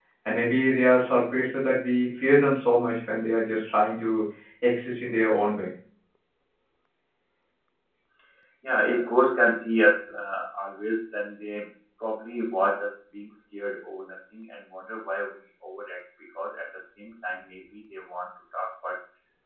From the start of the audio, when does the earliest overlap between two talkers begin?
none

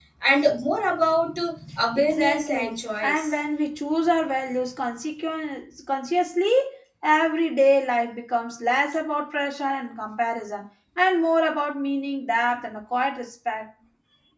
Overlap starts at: 1.9 s

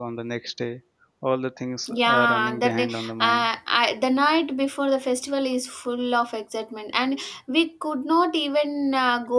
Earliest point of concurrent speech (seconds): 1.9 s

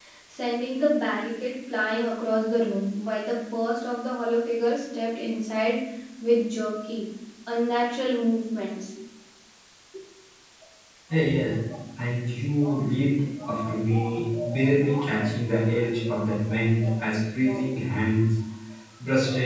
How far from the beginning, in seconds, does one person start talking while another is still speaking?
none

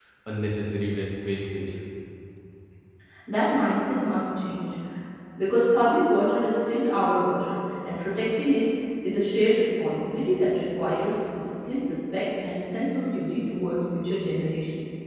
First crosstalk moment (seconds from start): none

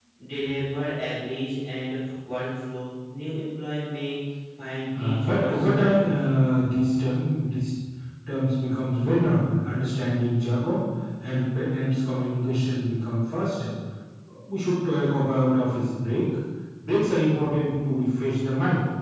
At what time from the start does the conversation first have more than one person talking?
4.9 s

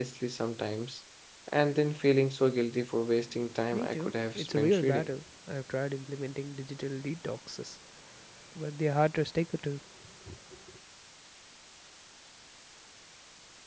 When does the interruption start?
3.7 s

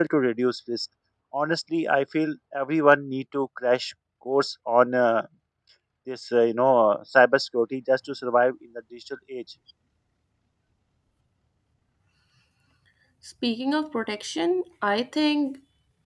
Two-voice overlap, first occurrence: none

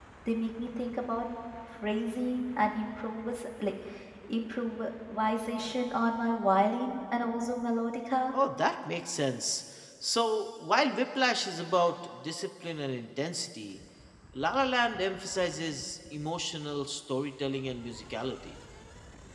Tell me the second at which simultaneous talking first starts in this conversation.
none

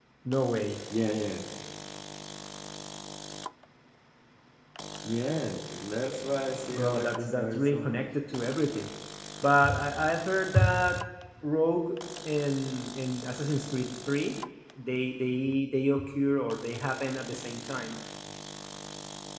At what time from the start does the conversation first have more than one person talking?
6.7 s

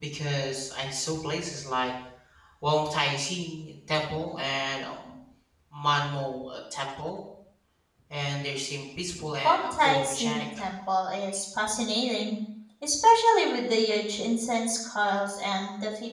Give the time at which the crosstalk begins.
9.4 s

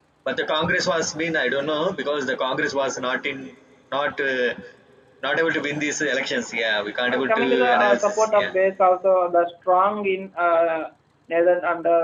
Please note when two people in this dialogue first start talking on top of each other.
7.1 s

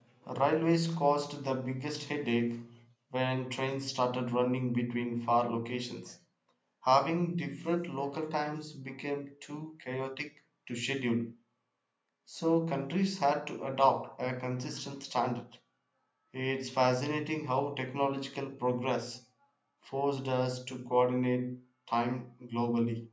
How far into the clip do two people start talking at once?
none

